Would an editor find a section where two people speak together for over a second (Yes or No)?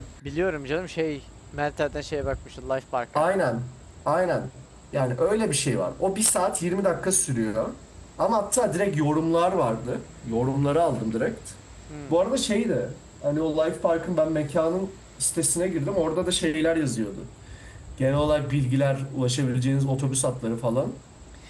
No